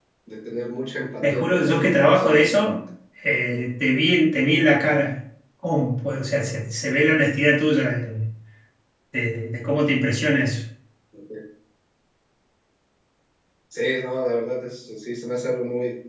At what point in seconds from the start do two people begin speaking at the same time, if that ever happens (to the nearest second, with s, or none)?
1 s